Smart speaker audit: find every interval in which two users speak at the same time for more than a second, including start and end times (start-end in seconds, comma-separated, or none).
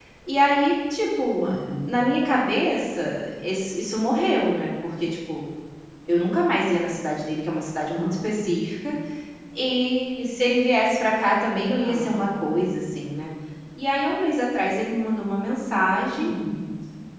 none